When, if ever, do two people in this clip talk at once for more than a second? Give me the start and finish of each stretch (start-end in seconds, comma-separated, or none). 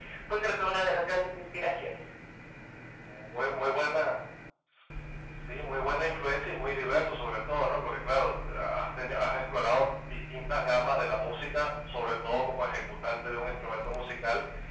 none